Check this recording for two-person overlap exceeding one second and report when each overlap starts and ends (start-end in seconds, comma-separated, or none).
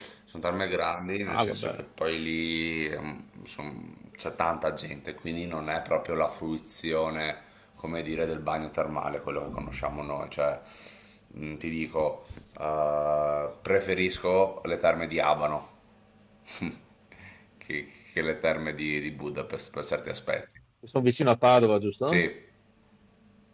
none